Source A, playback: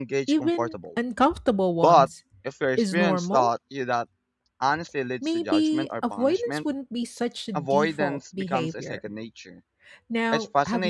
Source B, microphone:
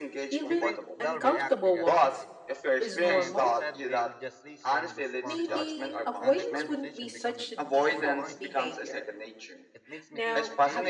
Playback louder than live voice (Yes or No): Yes